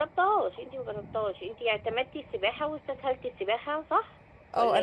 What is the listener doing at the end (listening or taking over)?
taking over